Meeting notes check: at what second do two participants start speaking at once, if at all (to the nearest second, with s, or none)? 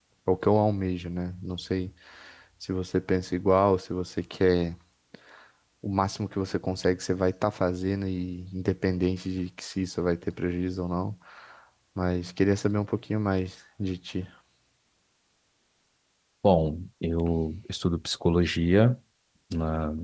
none